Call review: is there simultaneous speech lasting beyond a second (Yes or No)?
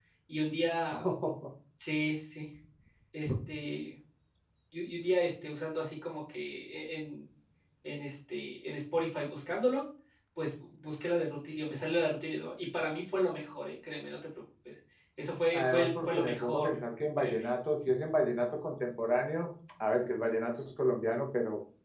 Yes